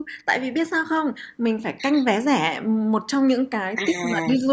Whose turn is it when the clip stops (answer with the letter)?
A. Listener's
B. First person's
B